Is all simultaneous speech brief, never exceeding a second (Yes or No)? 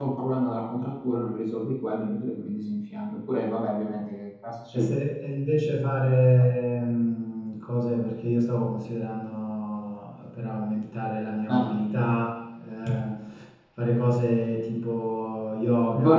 Yes